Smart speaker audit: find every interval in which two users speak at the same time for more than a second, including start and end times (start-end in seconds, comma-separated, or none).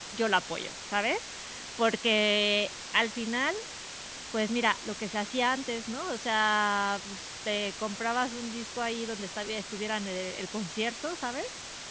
none